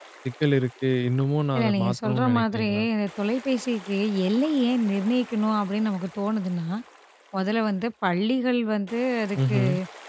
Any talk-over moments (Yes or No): Yes